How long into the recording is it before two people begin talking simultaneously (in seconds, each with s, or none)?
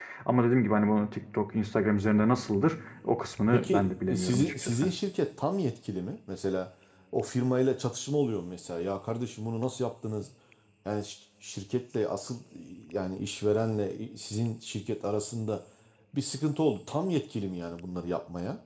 3.5 s